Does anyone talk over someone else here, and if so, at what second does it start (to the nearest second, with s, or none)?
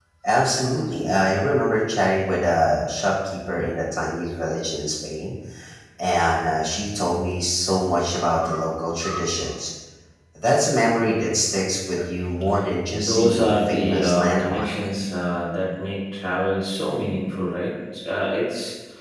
13 s